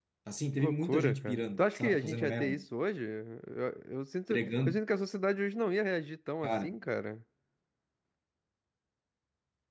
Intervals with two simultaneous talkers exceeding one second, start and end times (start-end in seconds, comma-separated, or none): 0.6-2.6